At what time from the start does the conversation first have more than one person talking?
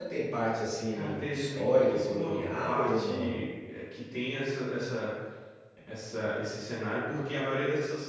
1 s

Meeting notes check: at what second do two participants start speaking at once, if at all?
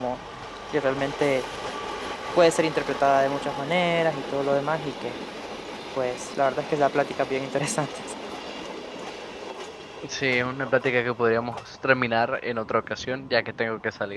none

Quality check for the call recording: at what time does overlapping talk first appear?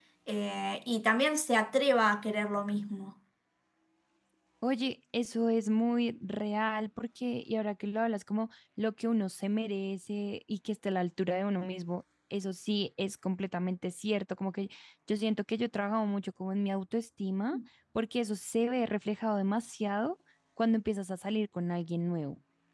none

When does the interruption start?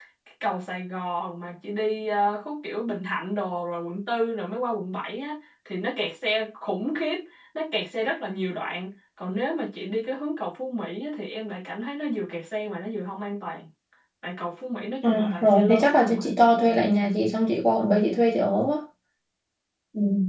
15 s

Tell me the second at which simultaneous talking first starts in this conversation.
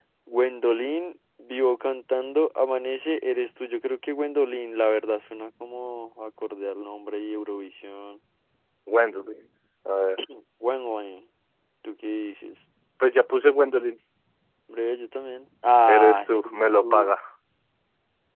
16 s

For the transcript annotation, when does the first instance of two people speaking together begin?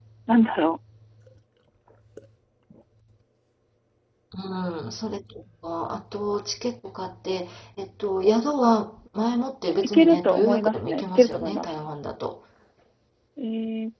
10 s

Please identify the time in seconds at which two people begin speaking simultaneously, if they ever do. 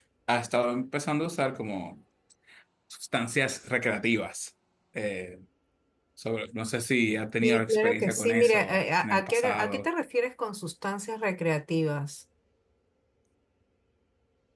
7 s

